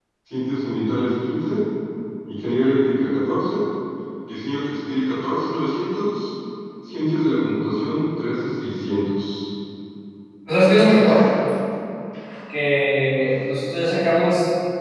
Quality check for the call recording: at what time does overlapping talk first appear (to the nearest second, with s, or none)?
none